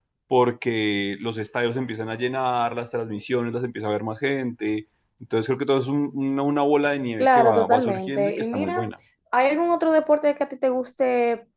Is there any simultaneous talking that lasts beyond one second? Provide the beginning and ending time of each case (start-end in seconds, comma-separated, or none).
7.2-8.9